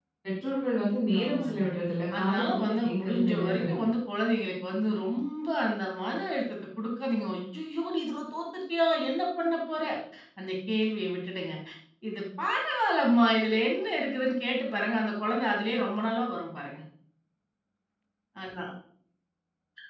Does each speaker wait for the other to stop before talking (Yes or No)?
No